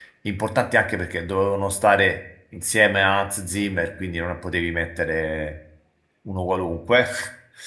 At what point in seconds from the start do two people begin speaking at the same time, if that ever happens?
none

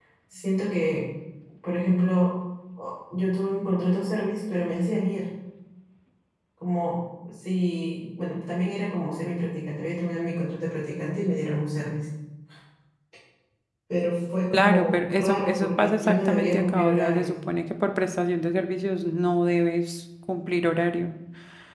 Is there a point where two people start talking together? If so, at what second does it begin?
14.5 s

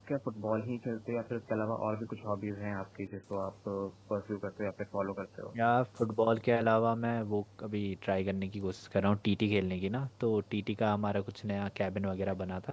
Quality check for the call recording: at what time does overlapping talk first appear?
none

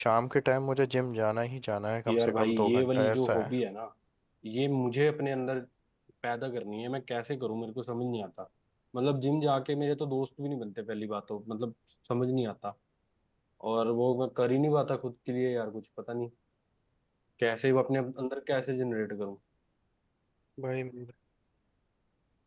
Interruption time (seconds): 2.1 s

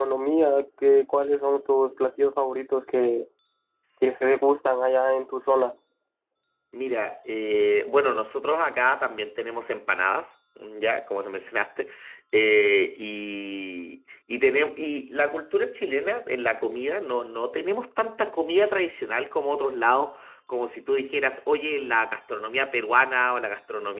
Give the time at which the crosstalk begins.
none

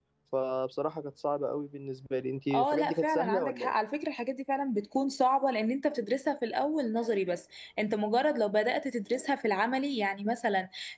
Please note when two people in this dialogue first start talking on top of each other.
2.5 s

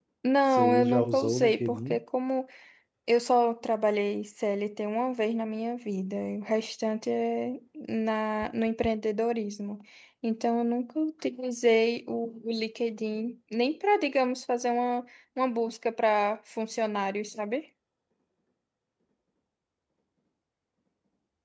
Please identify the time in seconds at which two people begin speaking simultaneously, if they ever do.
0.5 s

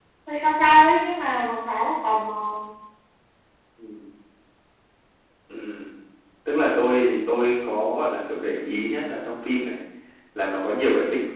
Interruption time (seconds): none

